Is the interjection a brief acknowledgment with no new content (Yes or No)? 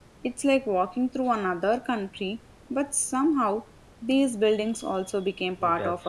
No